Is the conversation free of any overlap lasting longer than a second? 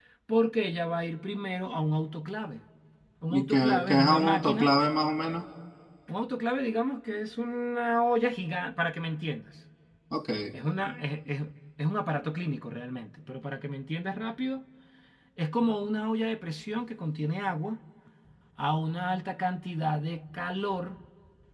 No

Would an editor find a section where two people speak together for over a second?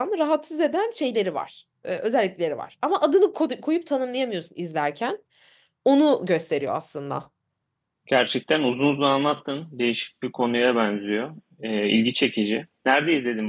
No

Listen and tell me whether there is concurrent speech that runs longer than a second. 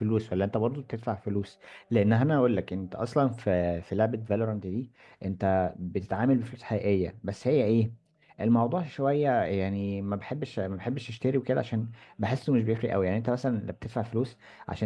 No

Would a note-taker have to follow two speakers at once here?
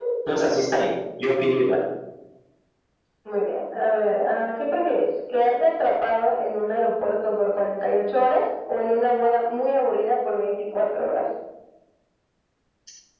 No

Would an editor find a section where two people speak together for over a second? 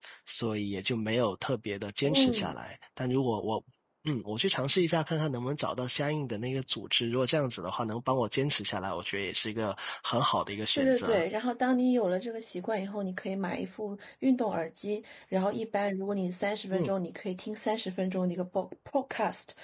No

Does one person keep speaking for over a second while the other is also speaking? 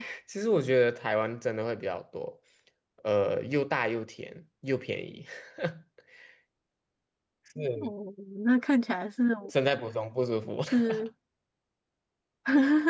No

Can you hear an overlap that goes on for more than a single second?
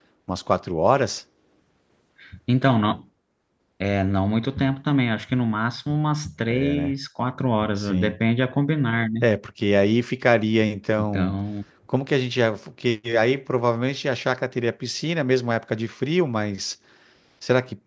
No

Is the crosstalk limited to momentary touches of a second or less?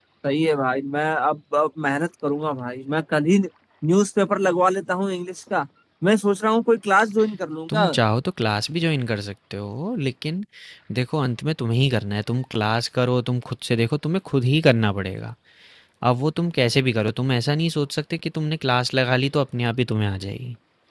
Yes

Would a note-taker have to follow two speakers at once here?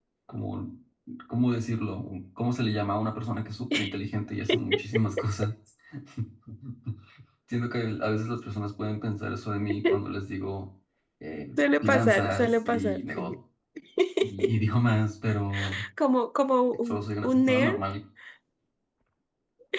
Yes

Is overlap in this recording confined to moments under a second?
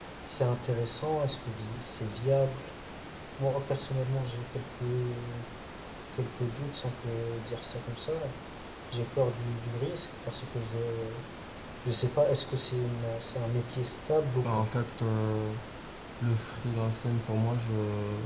Yes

